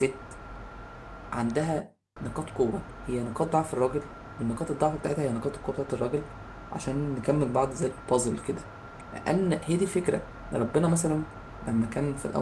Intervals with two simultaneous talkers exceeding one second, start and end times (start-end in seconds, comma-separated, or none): none